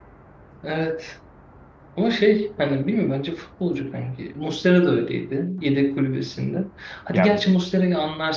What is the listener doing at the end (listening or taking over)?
listening